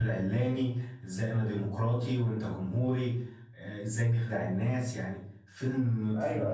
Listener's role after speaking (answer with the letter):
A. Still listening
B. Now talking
B